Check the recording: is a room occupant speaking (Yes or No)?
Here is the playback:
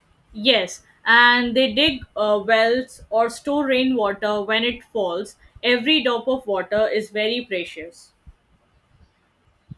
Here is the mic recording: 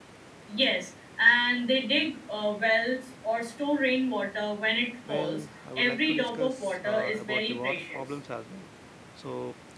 Yes